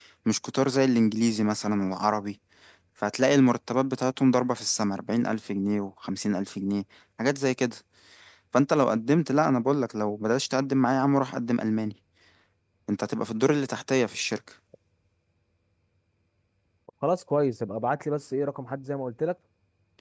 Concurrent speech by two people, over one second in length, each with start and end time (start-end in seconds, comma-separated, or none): none